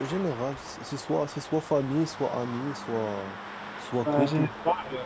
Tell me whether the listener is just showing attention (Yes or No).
No